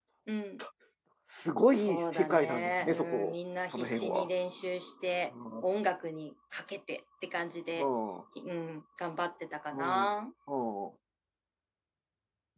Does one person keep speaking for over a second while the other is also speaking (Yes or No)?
Yes